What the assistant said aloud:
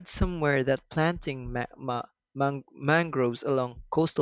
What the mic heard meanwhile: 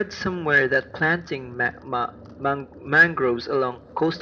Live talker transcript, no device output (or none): none